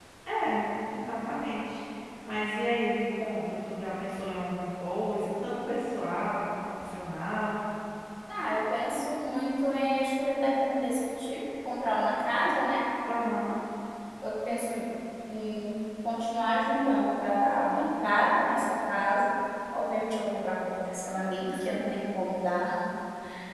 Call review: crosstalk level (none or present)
none